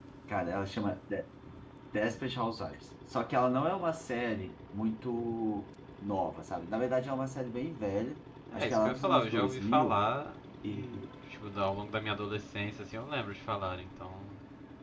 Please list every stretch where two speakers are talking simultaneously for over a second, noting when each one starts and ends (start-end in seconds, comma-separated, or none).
8.5-10.0